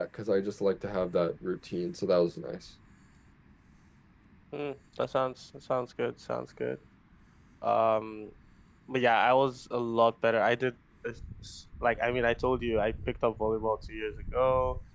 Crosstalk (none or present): none